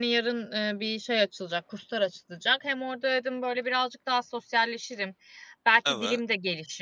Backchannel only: Yes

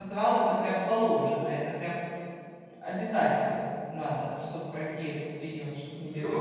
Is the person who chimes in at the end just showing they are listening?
No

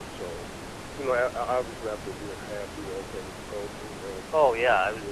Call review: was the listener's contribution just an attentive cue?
No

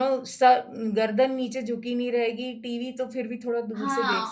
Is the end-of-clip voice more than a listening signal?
Yes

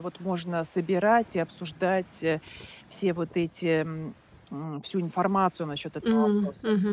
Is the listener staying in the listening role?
No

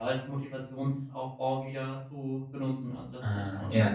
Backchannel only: No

